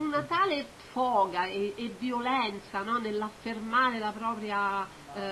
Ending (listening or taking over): taking over